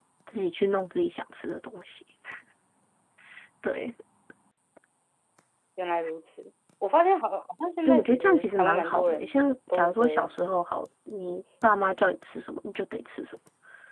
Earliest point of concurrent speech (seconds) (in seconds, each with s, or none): 7.8 s